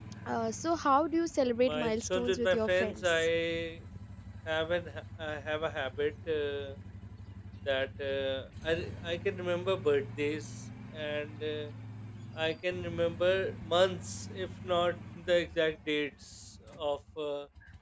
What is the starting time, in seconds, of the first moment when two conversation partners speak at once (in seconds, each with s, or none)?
1.7 s